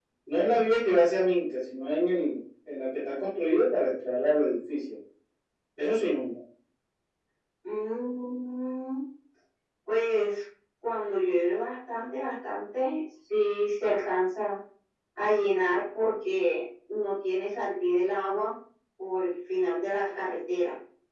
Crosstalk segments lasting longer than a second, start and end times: none

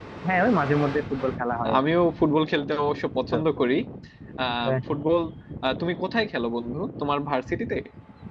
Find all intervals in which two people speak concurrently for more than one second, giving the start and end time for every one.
none

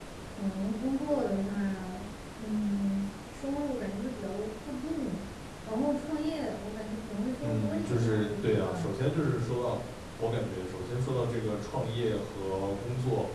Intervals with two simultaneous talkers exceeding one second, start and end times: 7.4-8.9

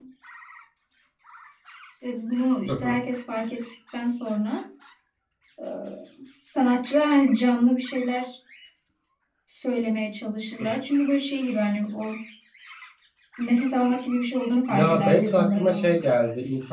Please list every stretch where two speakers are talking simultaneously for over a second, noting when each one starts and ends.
14.7-16.0

